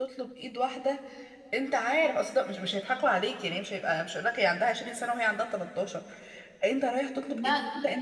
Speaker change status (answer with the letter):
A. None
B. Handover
A